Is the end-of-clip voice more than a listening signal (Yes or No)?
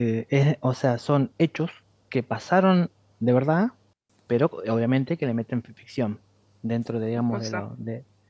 No